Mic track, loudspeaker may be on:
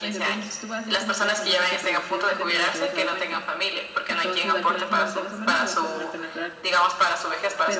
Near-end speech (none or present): present